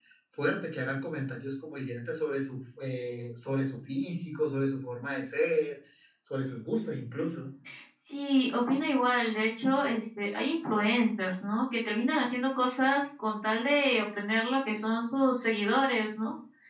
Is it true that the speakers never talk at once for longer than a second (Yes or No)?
Yes